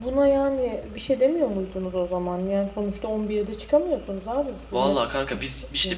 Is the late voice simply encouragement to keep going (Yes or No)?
No